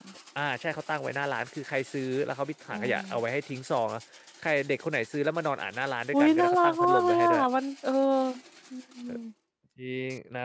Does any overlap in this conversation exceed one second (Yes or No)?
Yes